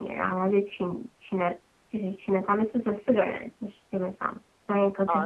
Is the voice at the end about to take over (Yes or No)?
Yes